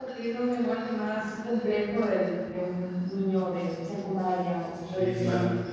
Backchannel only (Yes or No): No